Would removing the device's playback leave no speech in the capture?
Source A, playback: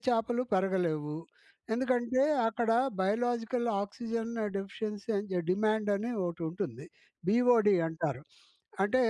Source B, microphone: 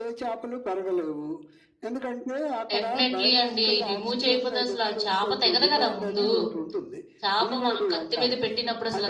No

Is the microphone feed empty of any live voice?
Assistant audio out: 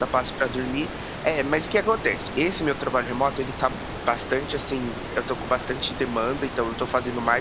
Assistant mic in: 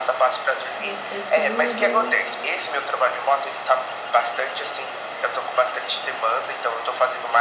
No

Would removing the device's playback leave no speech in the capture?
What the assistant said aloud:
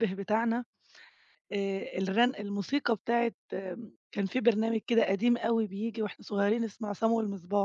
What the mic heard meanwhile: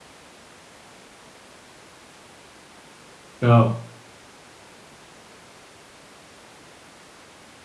No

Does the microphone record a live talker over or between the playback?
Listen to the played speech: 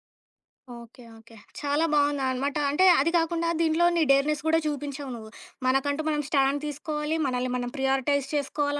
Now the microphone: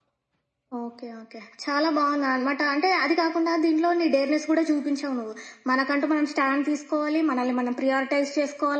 No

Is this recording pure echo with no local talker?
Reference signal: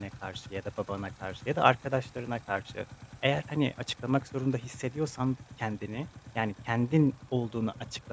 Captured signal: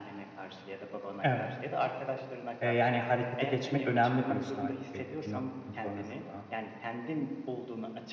No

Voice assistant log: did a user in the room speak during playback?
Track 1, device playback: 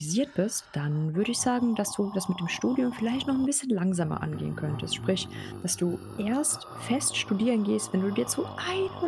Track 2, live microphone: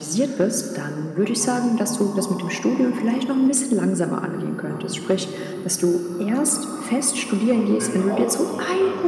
Yes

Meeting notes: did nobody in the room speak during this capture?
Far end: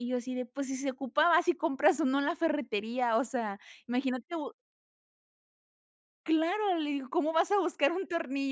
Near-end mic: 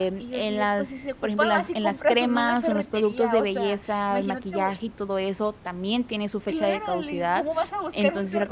No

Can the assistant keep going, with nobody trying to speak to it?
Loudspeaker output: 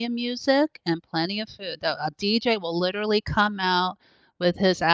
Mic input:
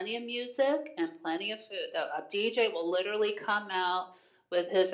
Yes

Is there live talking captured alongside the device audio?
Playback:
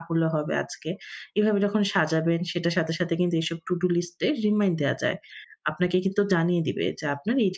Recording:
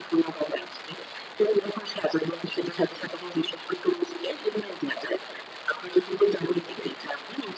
No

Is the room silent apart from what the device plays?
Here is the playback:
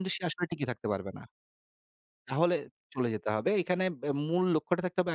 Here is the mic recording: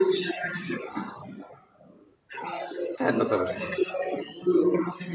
No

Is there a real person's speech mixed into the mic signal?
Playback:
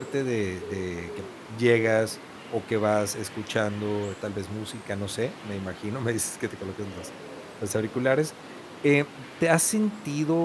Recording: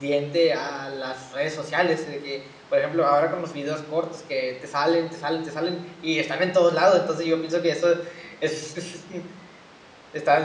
Yes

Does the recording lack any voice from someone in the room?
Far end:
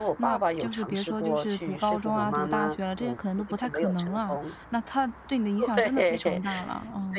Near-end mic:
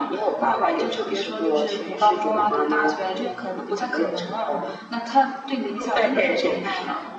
Yes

